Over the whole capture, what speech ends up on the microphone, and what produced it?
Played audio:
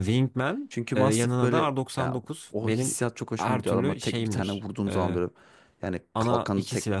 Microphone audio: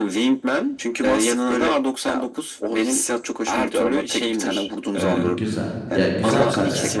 both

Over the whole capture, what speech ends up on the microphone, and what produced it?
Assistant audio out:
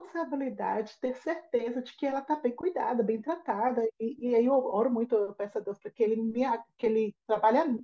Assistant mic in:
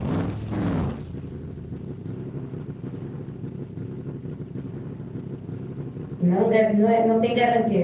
user only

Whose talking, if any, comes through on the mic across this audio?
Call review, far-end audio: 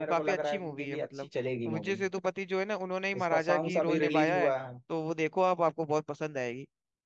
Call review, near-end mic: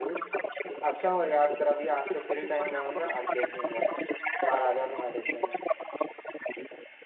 both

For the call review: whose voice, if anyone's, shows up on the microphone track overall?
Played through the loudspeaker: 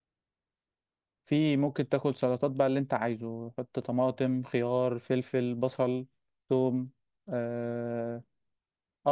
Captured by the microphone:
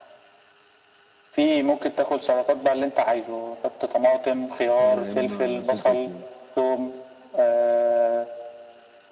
both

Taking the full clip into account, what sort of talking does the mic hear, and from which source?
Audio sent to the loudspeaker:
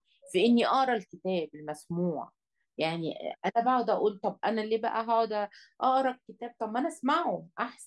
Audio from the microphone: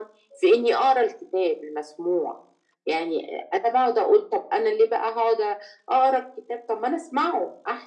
echo only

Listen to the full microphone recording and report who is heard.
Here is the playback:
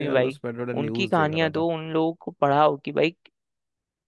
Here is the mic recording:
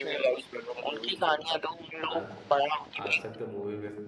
both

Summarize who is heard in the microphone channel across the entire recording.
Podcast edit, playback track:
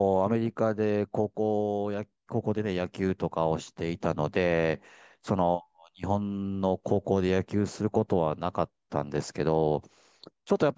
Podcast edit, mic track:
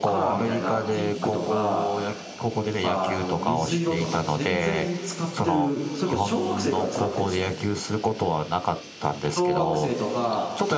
both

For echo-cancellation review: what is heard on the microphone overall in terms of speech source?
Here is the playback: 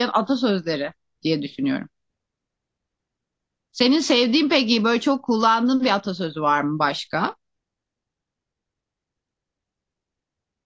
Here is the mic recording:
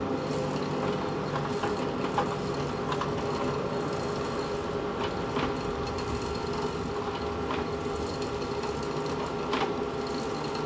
neither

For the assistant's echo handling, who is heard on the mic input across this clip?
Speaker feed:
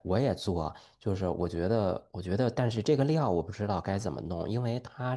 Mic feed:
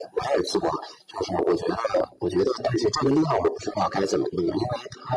echo only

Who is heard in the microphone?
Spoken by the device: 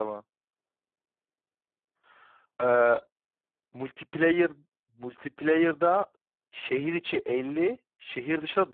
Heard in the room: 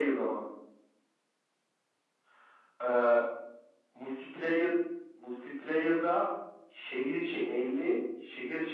echo only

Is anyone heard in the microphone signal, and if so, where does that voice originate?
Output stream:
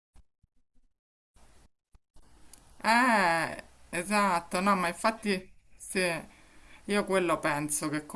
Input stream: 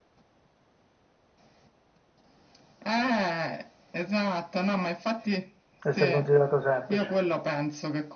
both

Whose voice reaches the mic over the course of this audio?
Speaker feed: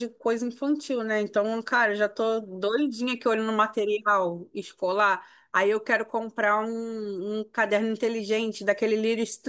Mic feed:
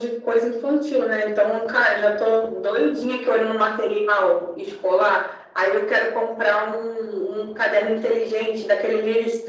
echo only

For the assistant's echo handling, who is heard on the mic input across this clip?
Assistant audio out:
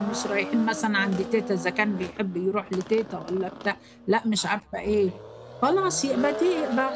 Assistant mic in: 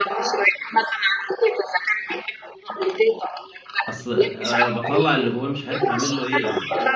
both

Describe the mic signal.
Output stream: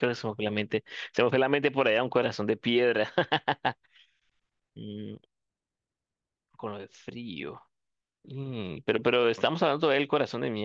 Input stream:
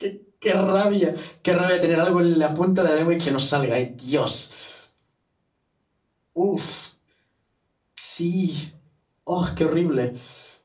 user only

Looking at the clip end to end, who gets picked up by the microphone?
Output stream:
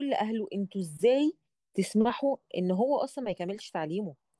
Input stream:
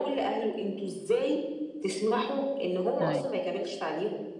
both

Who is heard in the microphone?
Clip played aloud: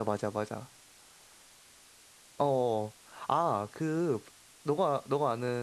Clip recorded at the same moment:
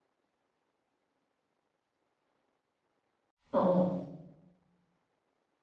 user only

